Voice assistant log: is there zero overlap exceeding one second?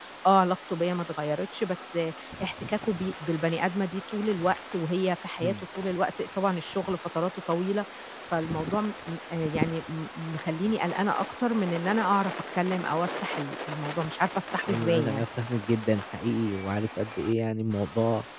Yes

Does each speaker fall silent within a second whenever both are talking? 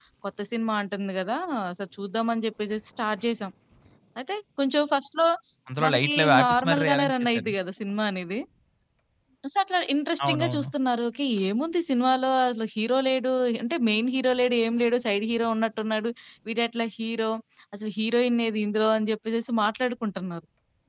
No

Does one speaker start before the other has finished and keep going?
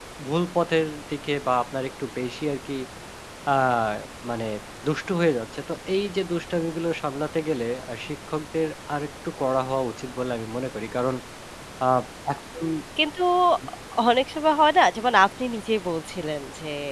No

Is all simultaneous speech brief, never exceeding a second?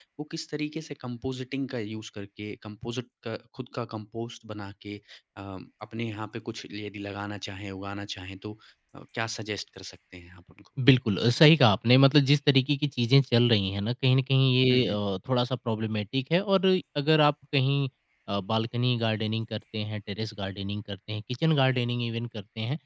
Yes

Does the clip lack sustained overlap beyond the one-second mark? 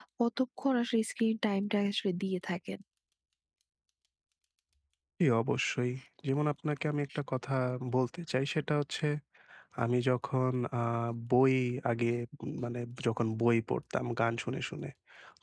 Yes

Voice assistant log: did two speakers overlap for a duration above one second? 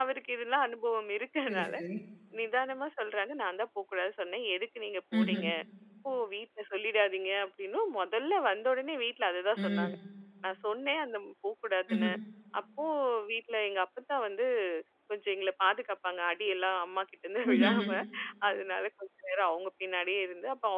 No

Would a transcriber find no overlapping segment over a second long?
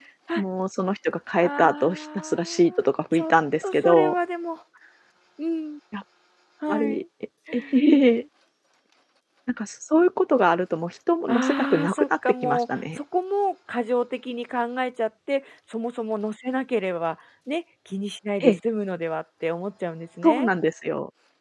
No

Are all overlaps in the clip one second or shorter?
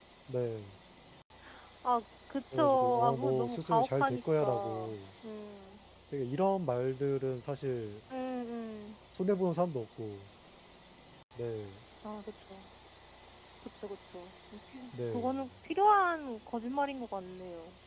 No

